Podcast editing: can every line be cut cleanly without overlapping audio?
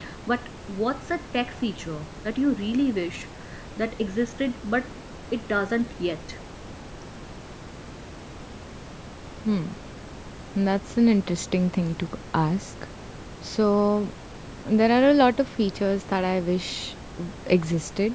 Yes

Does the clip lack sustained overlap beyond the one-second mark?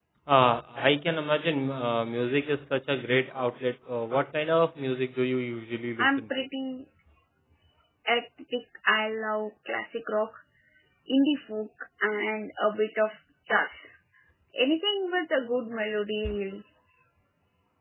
Yes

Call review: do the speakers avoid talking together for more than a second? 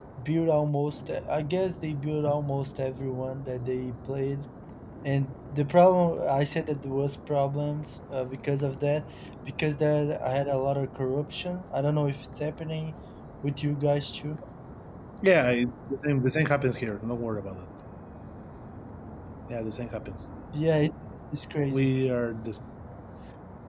Yes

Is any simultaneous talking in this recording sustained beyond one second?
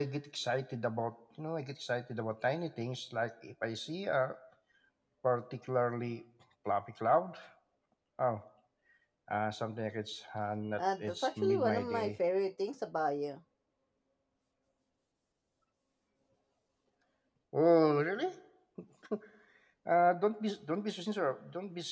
Yes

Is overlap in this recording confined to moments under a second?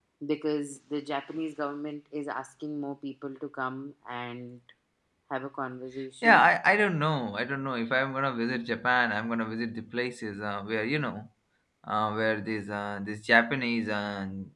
Yes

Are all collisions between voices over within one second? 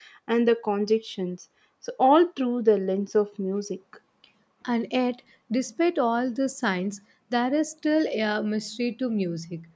Yes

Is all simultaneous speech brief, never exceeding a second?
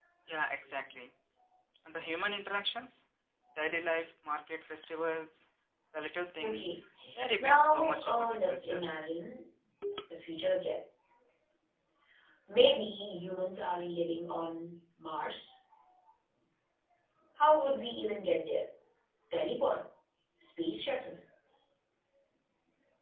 No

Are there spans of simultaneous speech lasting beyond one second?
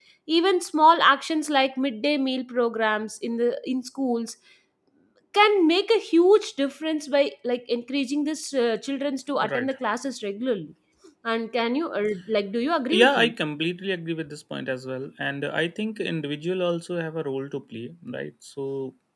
No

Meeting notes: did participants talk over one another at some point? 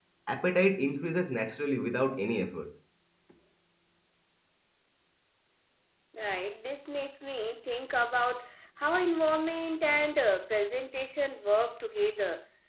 No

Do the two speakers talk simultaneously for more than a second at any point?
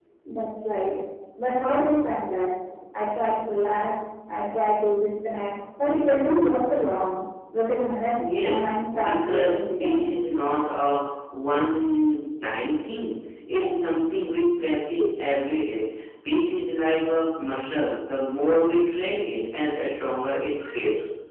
Yes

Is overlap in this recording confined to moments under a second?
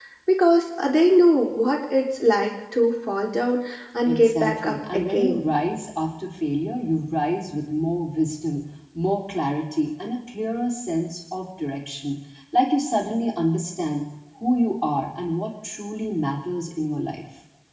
No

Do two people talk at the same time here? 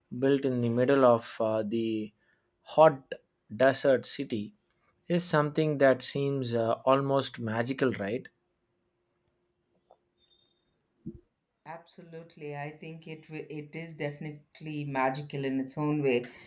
No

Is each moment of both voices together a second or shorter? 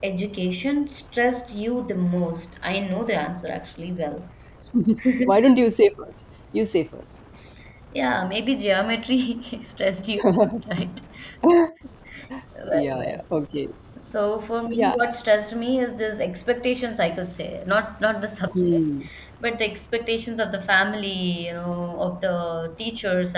Yes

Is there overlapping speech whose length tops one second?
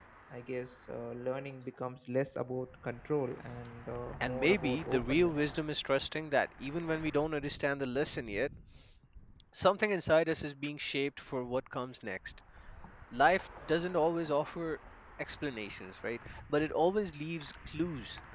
Yes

